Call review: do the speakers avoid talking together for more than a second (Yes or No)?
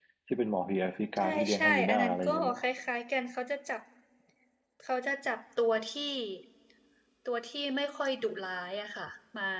No